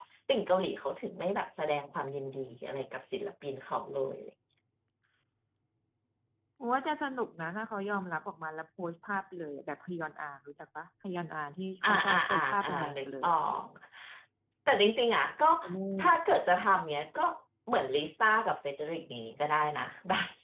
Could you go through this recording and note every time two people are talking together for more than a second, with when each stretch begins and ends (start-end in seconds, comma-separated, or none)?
11.9-13.4